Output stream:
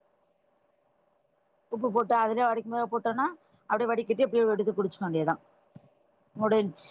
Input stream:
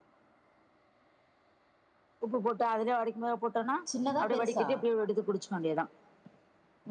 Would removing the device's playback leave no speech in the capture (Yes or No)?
No